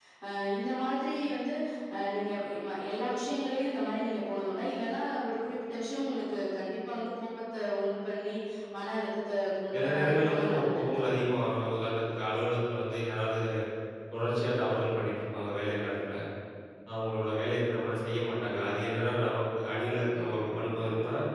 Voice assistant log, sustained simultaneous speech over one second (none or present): present